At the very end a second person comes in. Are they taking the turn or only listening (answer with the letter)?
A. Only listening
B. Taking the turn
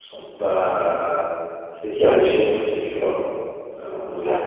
A